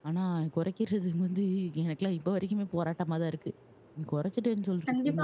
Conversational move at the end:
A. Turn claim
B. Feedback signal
A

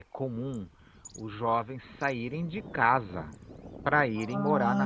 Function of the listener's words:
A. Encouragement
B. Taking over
B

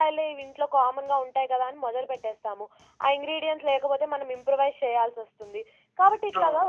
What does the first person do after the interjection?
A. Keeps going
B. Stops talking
A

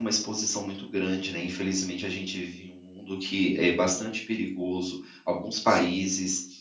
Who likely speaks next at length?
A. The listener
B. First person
B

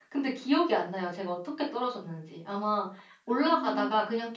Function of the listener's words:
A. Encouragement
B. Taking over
A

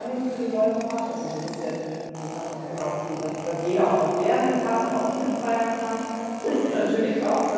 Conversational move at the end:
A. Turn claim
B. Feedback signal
B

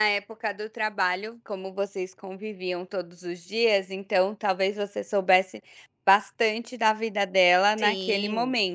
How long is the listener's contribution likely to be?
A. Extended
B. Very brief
A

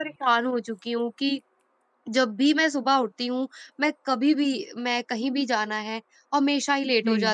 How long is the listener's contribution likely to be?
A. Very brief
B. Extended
A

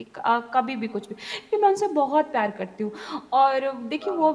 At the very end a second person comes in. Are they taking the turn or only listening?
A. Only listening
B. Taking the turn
A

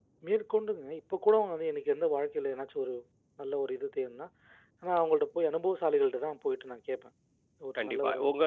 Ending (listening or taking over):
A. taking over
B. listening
A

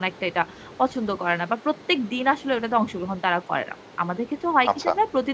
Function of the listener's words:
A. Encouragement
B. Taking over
A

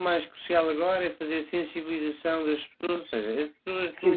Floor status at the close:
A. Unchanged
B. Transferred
B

